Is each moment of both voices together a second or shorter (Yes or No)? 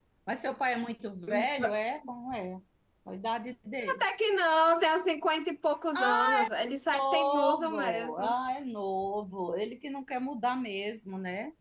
No